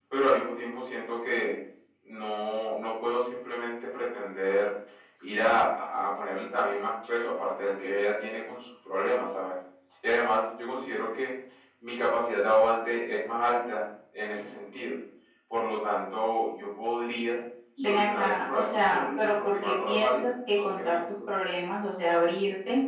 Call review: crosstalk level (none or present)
present